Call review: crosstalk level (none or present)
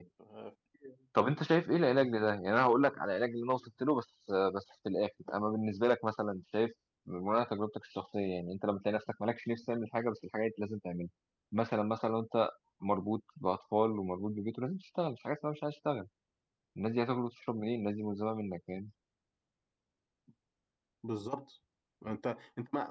none